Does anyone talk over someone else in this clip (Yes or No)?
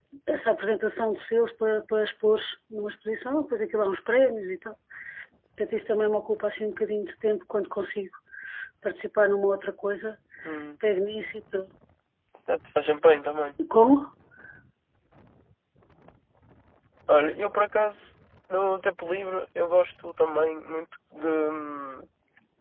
No